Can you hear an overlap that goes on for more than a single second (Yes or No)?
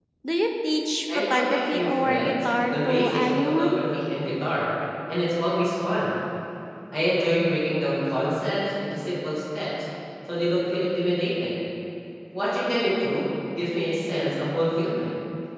Yes